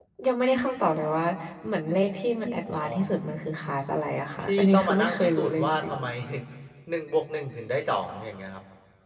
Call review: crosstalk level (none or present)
present